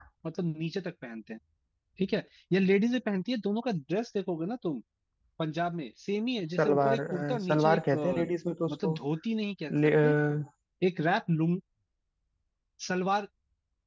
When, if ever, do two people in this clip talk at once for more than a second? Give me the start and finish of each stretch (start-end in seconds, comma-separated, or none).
6.5-8.3